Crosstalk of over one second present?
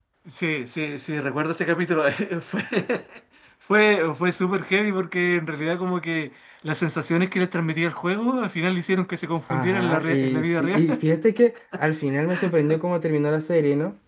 Yes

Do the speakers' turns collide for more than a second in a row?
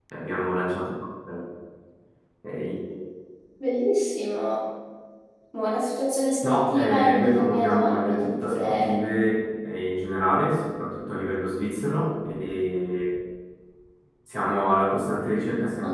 Yes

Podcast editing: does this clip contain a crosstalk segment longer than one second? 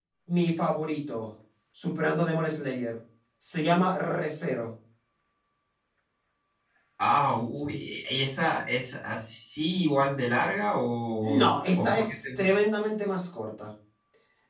Yes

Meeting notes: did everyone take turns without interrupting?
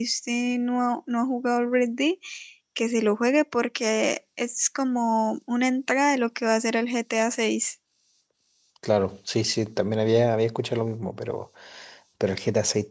Yes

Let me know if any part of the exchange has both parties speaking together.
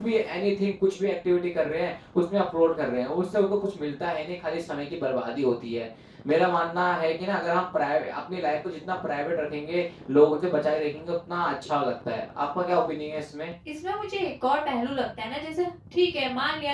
No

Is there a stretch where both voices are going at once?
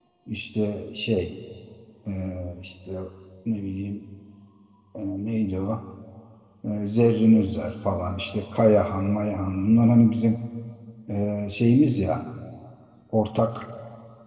No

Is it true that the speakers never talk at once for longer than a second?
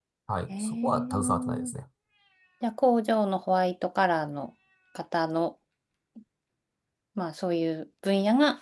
No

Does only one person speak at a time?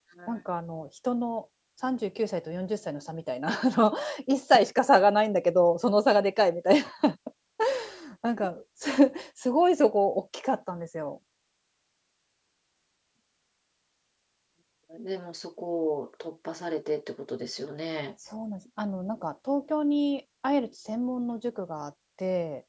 Yes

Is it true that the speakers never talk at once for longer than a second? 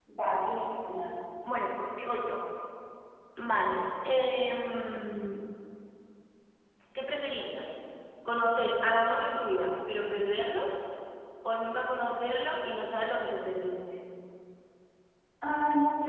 Yes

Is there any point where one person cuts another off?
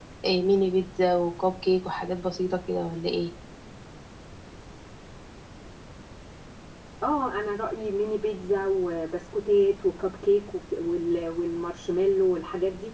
No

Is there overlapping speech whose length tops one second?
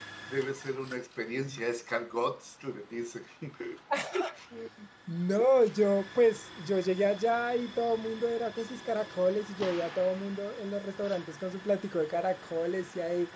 No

